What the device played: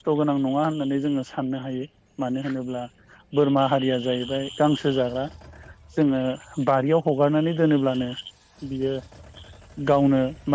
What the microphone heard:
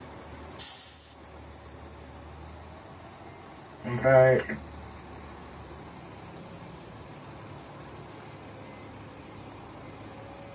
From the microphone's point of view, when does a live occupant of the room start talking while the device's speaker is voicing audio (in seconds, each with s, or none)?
3.9 s